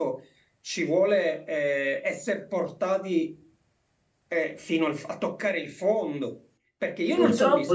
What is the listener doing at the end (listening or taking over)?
listening